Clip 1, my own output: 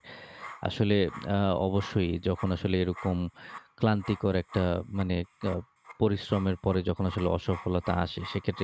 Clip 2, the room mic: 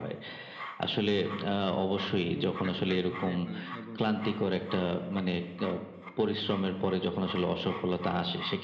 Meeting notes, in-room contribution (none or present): present